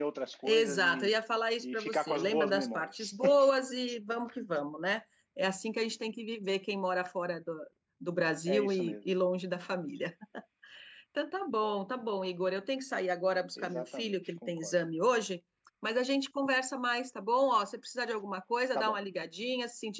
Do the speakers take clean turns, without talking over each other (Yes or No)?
No